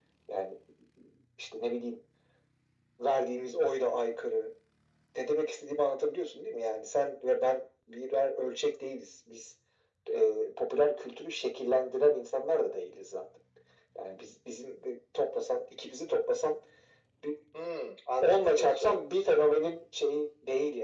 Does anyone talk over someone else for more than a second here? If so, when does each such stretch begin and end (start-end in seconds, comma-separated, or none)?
18.2-19.4